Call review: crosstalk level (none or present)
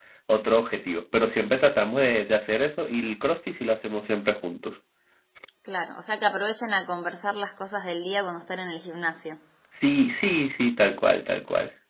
none